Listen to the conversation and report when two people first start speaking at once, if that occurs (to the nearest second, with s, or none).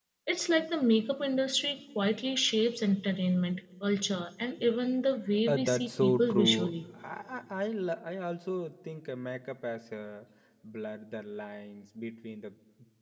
5 s